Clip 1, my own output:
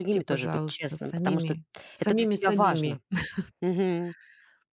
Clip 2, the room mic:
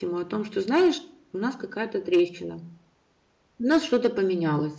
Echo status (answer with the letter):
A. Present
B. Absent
B